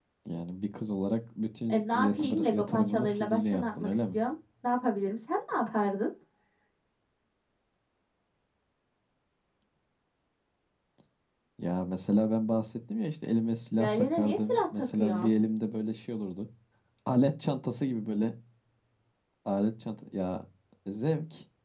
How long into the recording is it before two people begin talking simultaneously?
1.7 s

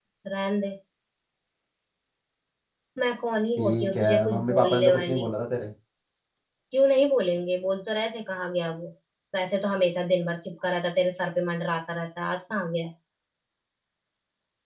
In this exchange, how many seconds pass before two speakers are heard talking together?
3.6 s

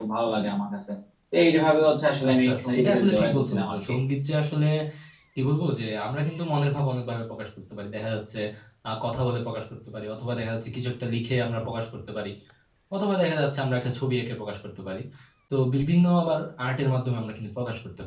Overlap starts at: 2.2 s

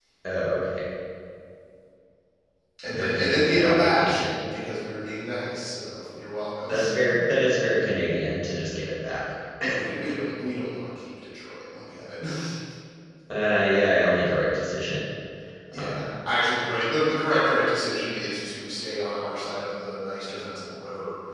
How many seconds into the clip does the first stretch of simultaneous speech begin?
2.9 s

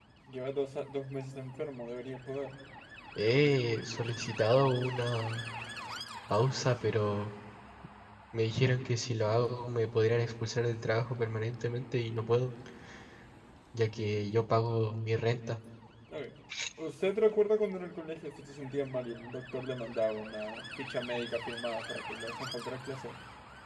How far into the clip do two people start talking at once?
none

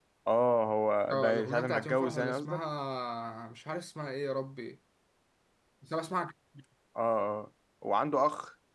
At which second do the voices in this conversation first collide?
1.1 s

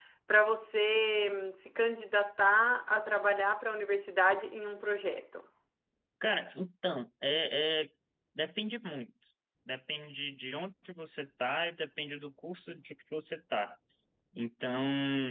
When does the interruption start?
none

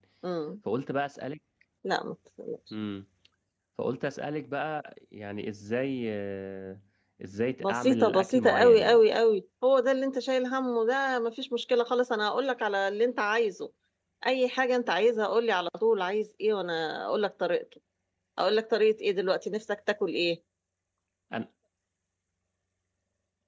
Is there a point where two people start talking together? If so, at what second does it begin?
7.6 s

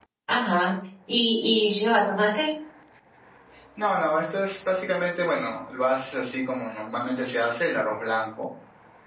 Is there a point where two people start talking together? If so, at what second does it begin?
none

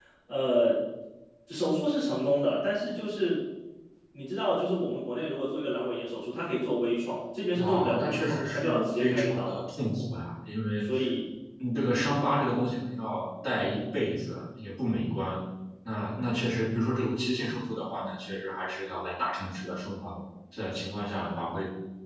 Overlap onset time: 7.5 s

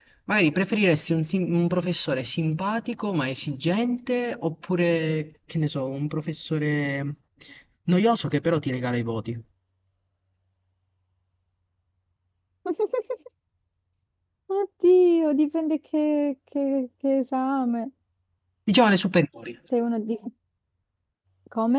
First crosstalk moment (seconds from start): none

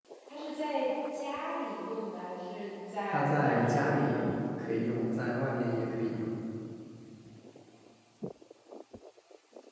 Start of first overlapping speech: 3.1 s

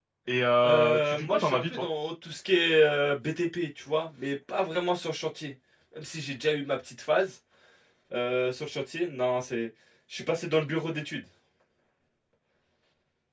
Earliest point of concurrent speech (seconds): 0.7 s

